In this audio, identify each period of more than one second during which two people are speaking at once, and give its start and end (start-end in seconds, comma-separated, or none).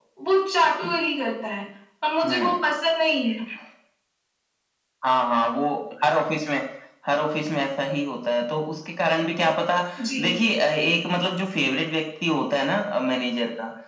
none